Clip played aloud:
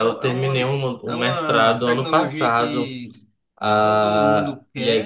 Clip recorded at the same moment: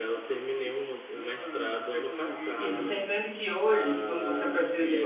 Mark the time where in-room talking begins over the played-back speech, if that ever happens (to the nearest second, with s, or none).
3 s